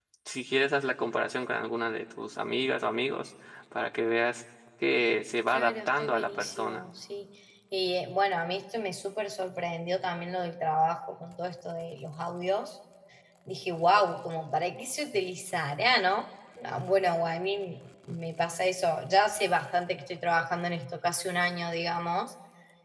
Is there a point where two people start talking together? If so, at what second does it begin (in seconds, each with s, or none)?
5.5 s